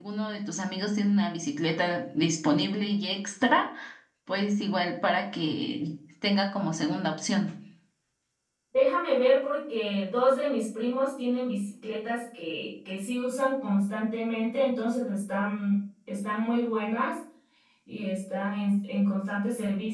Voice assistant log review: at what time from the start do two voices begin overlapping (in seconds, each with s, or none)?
none